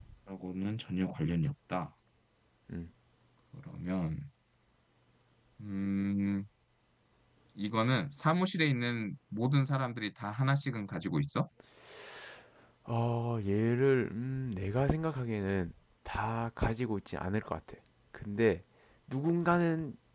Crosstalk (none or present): none